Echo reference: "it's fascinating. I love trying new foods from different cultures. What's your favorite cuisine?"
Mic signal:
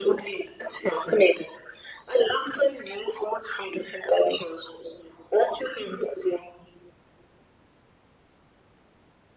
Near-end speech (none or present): none